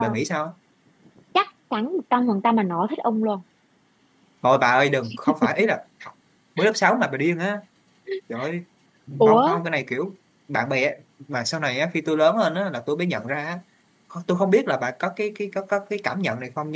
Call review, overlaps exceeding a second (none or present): none